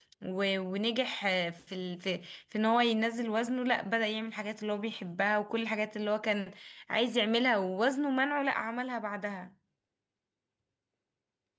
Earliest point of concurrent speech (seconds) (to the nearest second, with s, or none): none